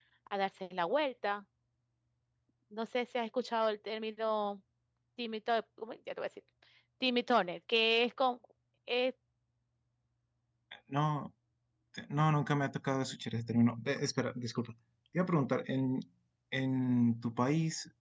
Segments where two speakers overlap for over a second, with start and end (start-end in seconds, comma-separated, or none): none